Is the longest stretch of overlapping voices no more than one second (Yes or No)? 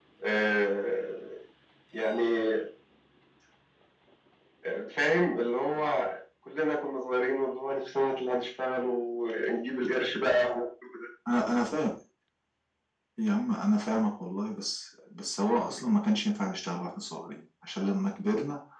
Yes